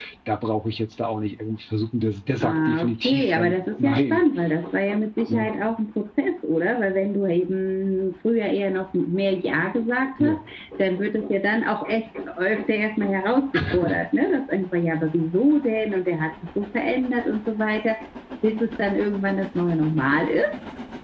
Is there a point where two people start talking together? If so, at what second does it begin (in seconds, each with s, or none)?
2.4 s